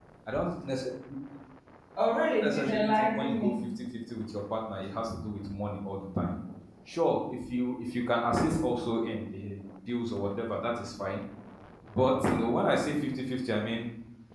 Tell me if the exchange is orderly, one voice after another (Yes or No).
No